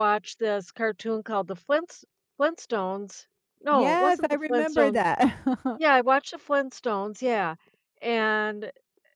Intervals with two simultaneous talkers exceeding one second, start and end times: 3.7-5.0

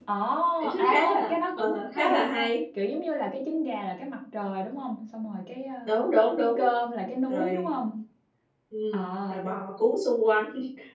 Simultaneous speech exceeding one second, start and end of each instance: 0.8-2.5

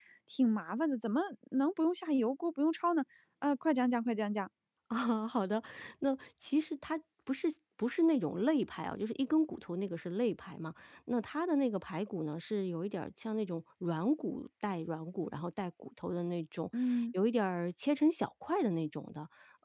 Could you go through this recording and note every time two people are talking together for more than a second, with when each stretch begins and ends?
none

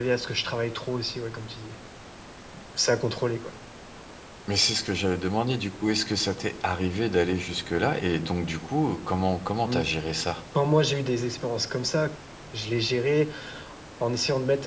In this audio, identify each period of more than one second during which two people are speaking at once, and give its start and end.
none

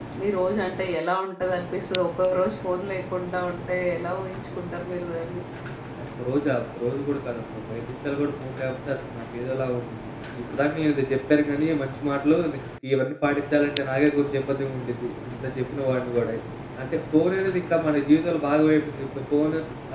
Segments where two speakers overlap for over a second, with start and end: none

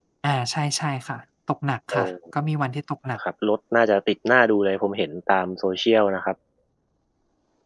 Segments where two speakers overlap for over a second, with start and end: none

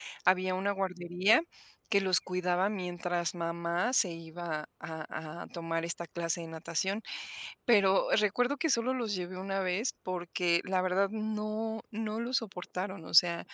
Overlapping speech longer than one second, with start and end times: none

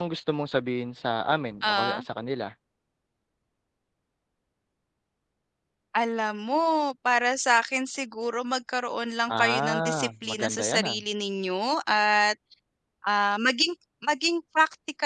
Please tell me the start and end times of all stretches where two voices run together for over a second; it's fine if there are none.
9.4-10.9

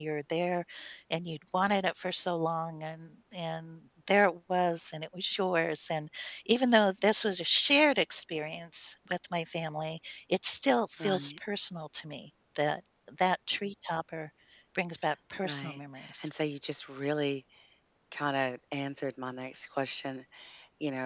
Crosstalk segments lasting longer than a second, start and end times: none

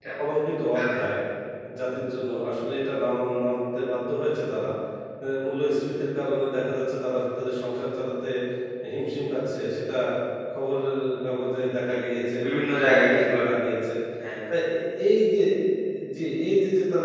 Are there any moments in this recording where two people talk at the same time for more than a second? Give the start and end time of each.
11.9-13.4

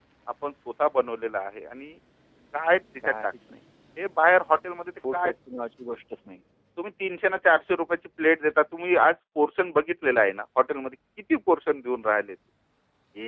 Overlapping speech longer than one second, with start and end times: none

